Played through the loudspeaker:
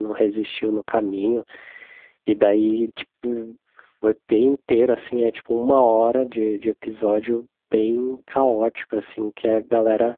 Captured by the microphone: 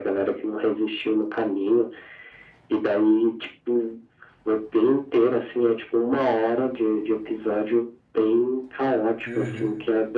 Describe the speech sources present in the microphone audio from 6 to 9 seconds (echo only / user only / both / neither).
echo only